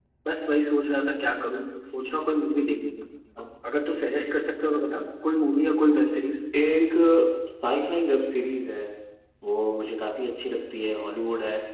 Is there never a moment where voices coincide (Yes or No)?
Yes